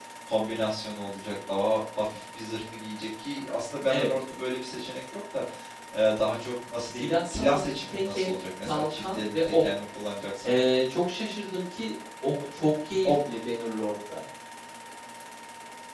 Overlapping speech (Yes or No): Yes